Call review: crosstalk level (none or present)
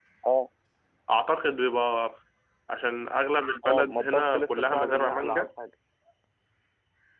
present